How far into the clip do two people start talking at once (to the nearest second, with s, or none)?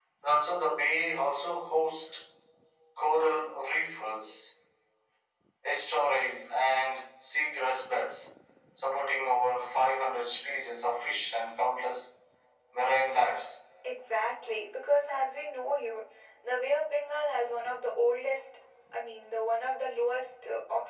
none